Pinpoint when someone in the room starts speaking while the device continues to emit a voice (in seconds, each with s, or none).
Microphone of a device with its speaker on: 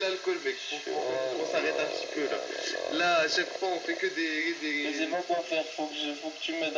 none